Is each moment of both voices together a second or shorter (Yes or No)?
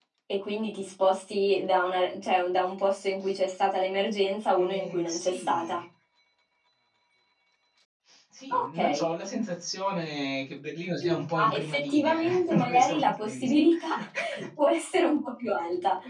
No